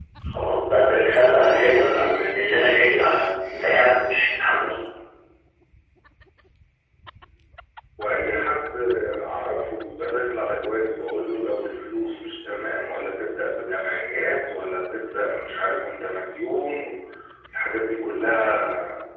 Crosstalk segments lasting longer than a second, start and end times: 0.9-2.2

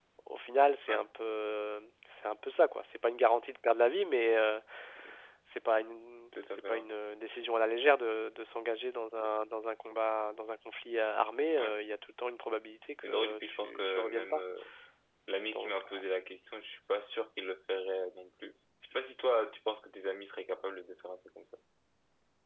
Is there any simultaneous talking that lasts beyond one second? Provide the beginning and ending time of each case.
13.0-14.4

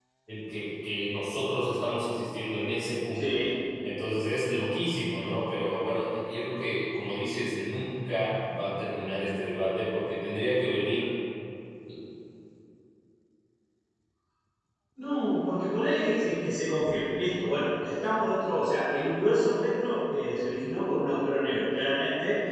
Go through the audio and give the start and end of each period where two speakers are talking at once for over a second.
none

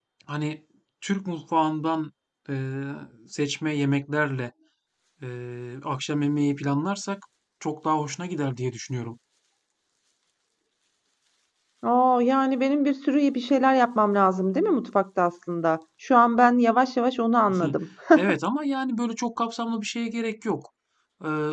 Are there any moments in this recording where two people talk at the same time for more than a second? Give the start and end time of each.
none

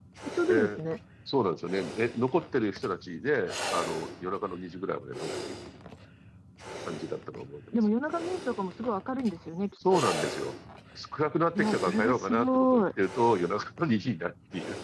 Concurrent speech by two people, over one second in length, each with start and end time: 11.5-12.8

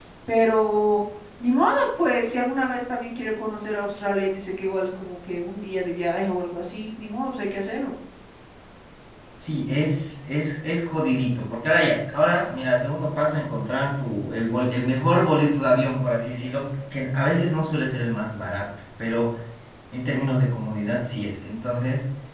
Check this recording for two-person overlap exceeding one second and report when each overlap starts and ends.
none

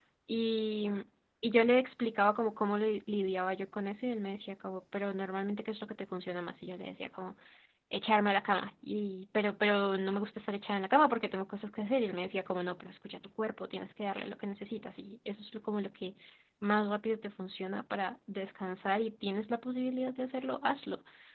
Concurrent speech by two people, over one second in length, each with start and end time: none

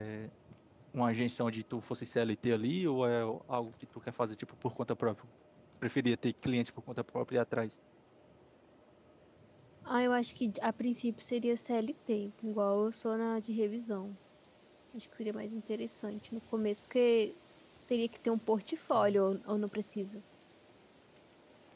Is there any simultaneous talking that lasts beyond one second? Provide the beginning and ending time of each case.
none

